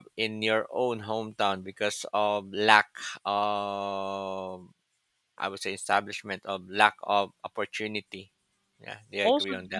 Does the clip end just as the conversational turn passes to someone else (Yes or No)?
Yes